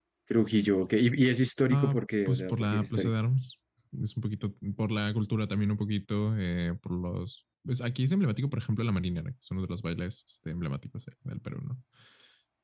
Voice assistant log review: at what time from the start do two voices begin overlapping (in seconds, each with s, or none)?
1.7 s